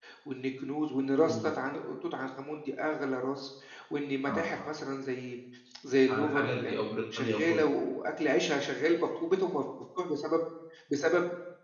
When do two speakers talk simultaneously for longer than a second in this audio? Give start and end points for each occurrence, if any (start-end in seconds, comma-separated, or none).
6.1-7.7